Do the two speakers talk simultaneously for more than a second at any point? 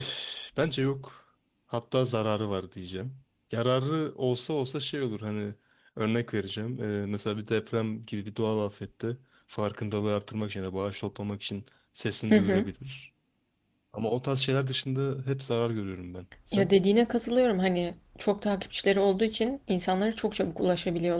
No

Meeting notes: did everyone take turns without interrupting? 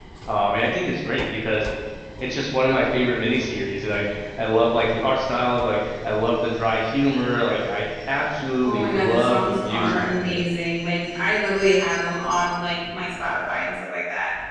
No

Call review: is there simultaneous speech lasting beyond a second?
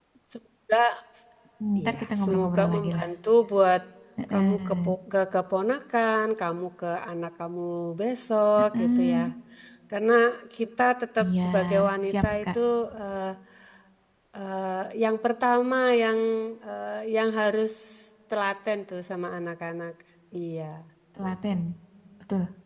Yes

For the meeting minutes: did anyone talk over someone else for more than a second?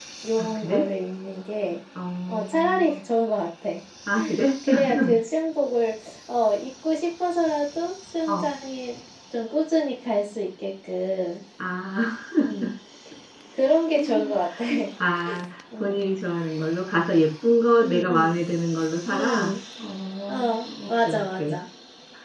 Yes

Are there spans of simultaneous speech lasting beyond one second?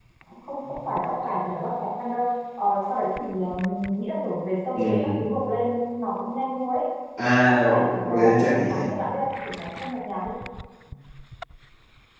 Yes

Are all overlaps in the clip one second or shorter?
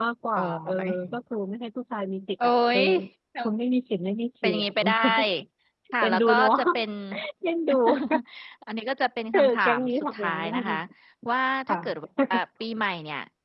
No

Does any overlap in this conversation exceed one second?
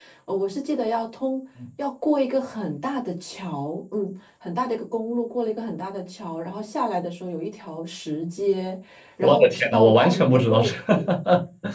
Yes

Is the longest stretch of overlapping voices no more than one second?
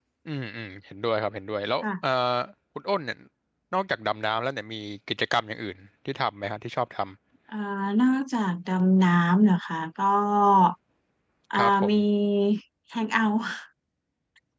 Yes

